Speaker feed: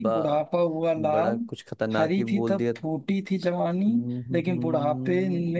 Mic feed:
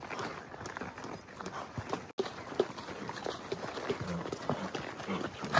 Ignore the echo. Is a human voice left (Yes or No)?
No